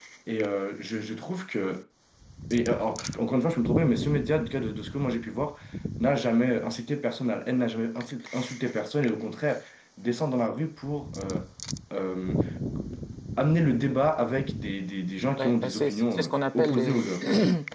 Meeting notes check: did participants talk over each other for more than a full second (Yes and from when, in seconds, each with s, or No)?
Yes, from 15.3 s